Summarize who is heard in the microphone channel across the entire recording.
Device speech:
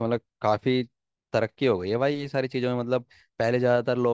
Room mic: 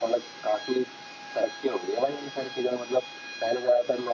echo only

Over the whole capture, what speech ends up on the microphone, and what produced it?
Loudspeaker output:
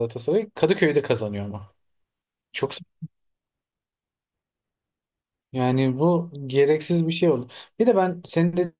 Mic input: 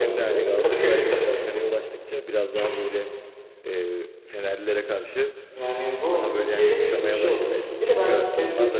both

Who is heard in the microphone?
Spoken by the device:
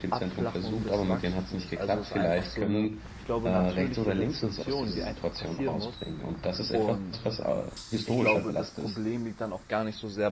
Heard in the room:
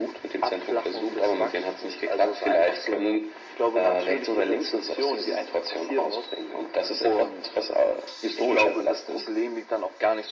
echo only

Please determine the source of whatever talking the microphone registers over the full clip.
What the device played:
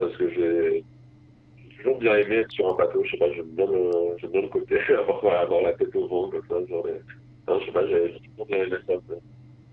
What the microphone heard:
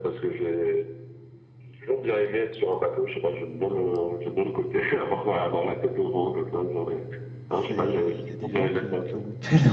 both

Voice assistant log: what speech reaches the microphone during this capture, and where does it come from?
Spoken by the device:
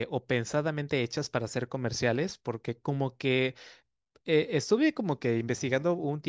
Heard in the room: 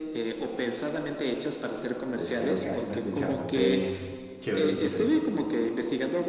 both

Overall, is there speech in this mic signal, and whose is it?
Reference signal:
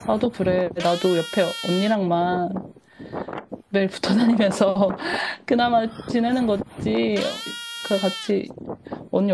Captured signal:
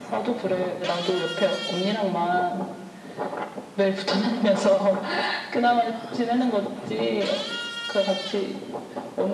echo only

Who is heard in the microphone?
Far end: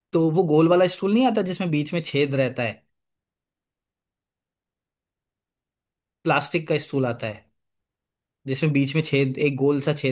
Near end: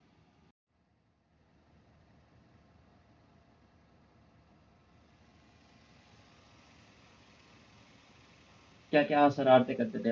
user only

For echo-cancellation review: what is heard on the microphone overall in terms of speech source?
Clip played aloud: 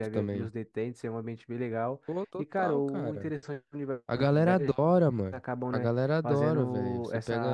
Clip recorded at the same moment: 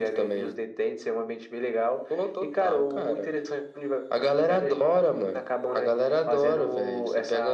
echo only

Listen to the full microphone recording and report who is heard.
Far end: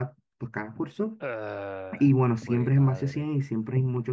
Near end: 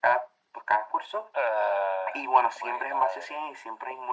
echo only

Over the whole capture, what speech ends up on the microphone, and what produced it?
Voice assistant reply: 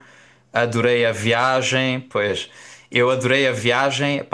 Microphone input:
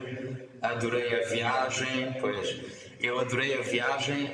echo only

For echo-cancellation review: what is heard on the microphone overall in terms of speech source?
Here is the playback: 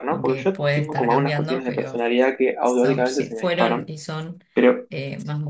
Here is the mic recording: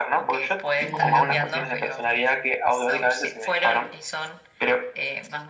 both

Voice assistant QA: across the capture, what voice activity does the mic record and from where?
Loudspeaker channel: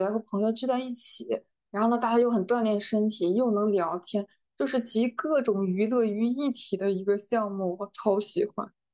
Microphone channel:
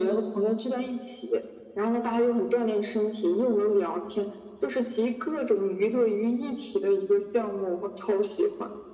echo only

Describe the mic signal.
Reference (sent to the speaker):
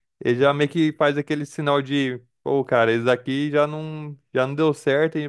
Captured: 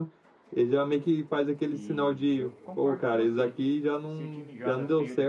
both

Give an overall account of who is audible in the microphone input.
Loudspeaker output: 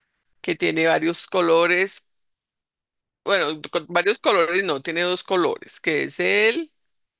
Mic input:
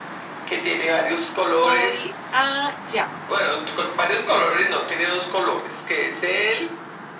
both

